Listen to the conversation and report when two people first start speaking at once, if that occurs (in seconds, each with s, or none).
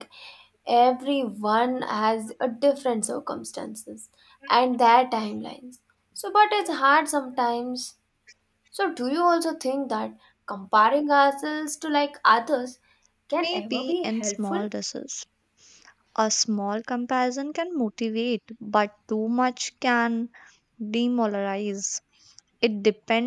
13.4 s